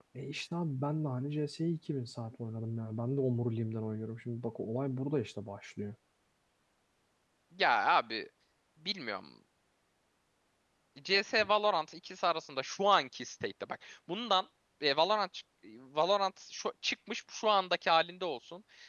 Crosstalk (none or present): none